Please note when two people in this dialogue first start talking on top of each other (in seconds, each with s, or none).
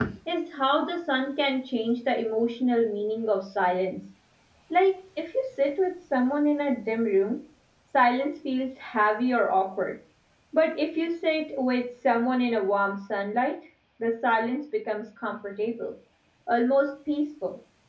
none